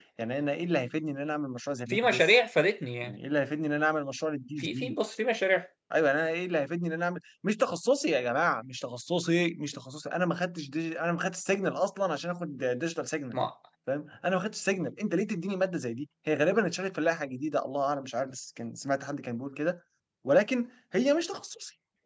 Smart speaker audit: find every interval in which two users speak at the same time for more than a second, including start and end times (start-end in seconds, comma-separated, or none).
none